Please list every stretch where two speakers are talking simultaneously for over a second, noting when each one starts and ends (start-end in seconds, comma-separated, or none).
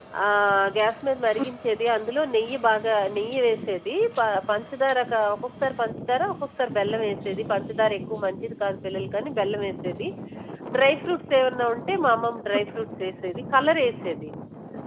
none